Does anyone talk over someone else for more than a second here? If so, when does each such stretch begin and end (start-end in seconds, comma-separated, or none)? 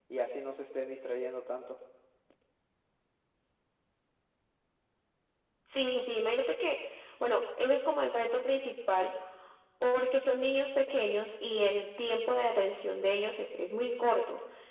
none